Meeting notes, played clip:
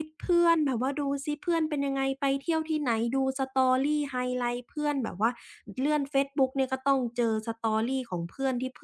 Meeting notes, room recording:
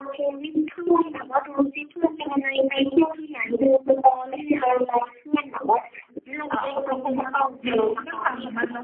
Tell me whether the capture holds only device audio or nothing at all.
No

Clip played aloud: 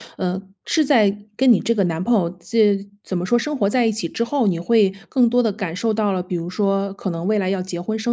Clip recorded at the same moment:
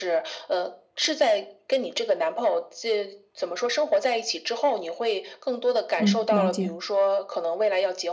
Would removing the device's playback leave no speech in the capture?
No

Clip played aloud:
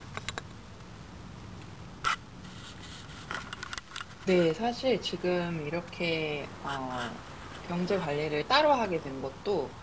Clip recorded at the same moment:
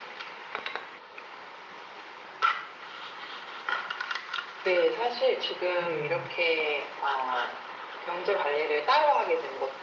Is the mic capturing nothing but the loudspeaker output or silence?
No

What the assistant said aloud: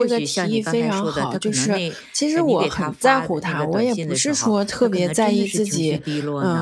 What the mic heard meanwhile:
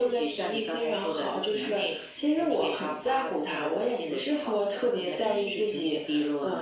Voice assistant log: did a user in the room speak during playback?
No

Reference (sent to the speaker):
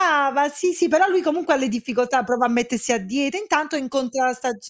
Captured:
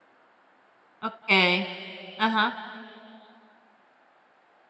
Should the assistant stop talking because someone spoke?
Yes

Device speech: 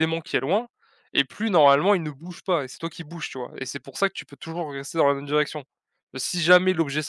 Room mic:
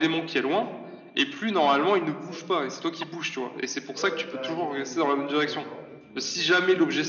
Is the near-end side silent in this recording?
No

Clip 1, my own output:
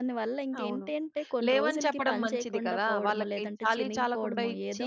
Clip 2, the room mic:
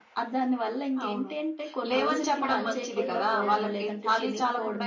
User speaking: Yes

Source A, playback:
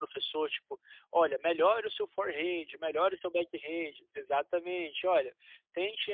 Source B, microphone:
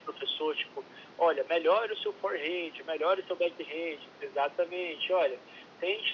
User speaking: No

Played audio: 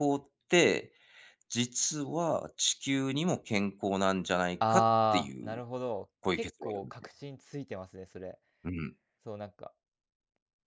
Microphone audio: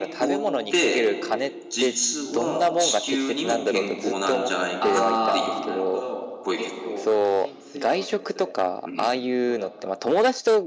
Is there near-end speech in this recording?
Yes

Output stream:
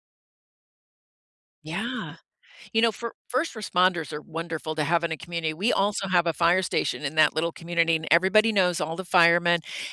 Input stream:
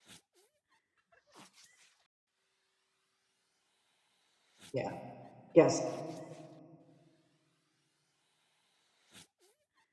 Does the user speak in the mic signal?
Yes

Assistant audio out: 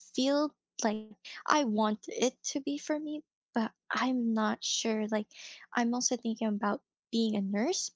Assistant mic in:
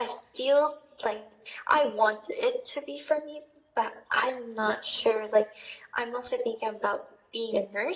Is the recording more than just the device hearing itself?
No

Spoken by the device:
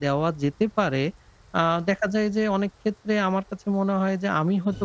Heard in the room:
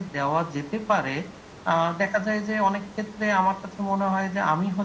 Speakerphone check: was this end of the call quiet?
Yes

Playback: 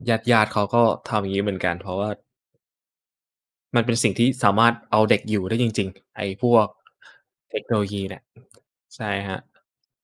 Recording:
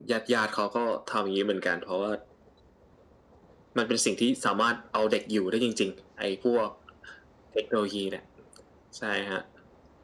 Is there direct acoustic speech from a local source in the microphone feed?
No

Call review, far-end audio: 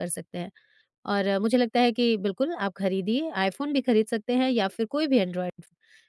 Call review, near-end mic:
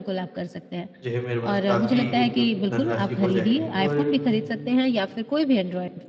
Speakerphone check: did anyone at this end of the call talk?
Yes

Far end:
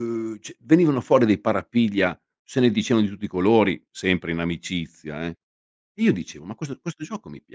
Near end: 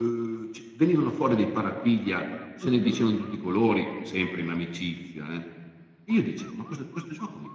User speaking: Yes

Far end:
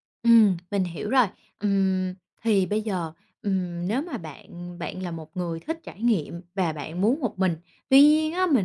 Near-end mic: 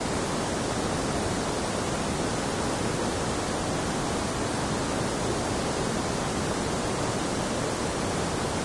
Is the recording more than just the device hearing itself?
No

